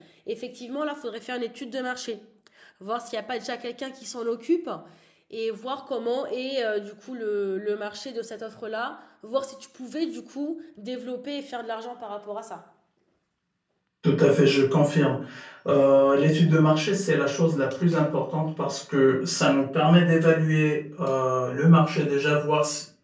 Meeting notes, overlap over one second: none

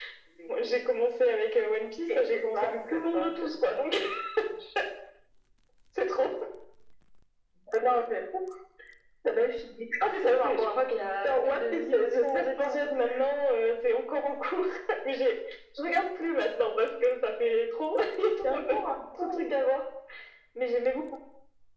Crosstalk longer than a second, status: present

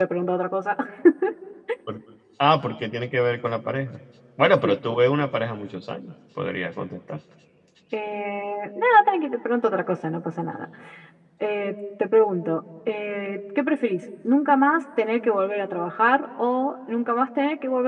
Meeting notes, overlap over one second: none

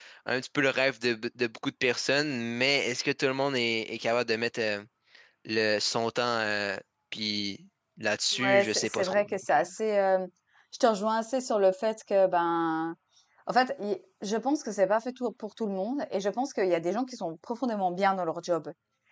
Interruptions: present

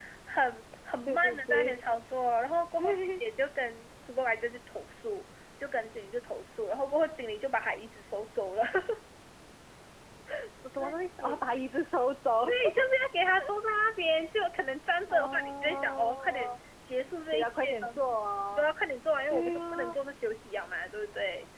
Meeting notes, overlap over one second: present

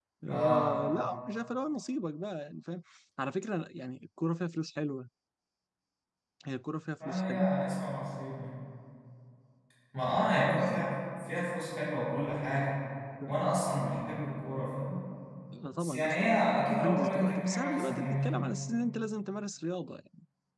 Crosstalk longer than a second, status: present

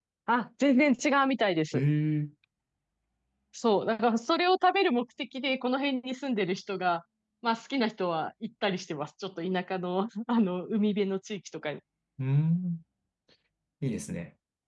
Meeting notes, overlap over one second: none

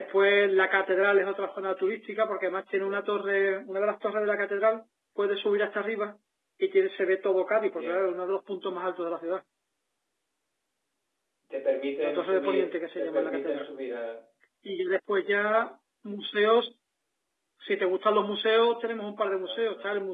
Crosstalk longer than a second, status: present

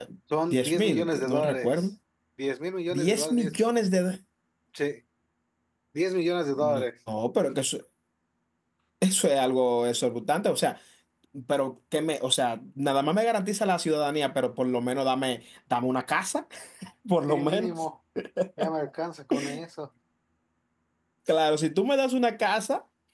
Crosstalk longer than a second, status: present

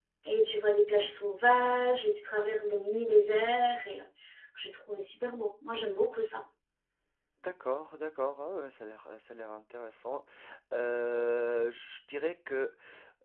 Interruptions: none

